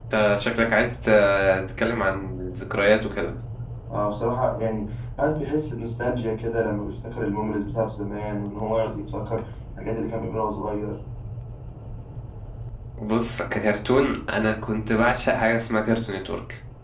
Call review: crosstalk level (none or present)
none